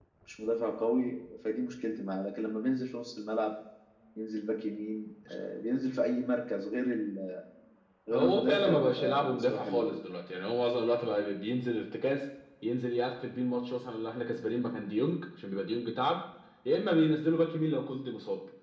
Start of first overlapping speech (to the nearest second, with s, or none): 8 s